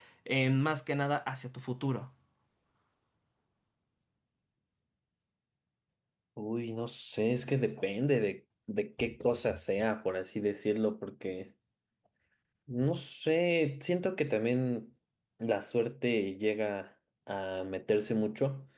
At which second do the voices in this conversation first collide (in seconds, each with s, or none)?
none